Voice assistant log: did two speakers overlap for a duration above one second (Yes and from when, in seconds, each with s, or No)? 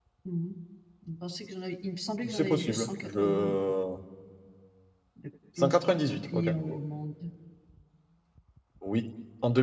Yes, from 2.3 s